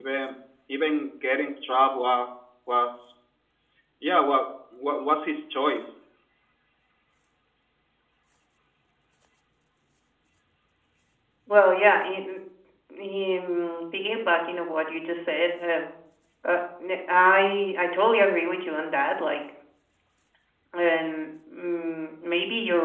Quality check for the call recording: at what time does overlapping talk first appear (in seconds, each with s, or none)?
none